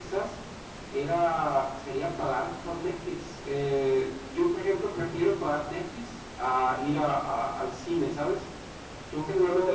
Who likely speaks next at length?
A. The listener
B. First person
A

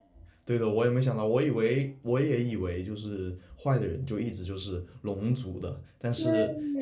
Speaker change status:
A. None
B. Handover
A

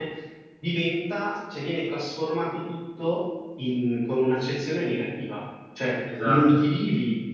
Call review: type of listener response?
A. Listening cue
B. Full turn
A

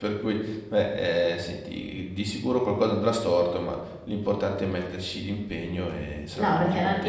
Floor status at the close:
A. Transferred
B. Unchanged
A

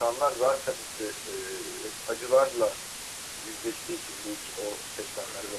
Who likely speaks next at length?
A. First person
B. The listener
A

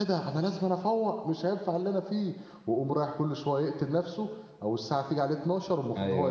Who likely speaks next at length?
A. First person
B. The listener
B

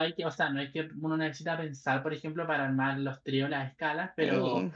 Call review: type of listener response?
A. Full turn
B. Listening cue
B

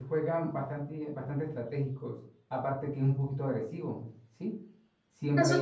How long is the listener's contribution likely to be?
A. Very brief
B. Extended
B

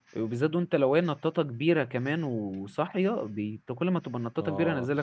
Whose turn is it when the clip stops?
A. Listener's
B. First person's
A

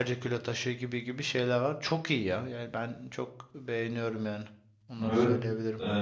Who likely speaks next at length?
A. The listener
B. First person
A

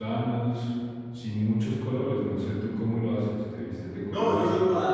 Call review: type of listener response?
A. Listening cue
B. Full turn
B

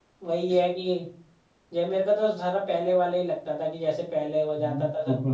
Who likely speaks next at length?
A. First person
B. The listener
B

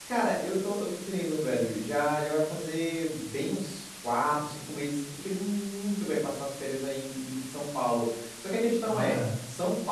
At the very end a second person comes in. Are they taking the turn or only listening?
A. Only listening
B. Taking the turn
A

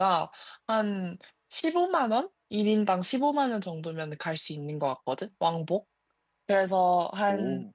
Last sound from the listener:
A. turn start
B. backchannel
B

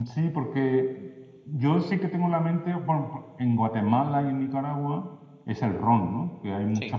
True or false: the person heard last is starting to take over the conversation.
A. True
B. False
B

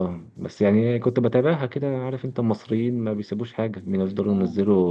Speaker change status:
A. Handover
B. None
B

